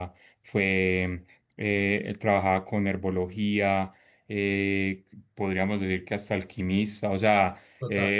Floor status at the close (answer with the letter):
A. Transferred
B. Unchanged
B